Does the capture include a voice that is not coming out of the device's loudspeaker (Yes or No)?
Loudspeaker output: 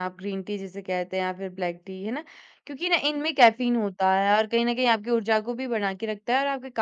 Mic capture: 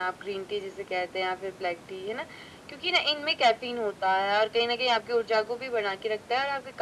No